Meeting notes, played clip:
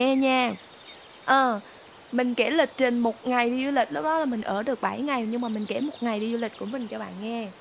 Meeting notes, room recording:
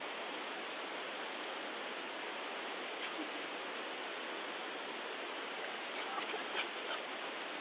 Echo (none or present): none